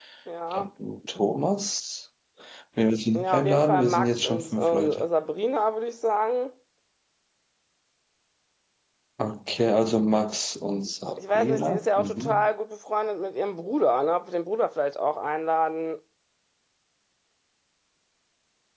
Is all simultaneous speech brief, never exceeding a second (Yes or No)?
No